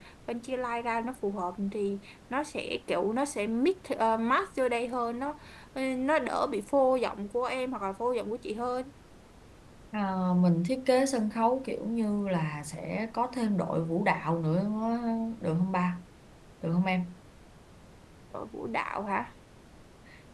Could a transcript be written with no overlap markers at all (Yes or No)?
Yes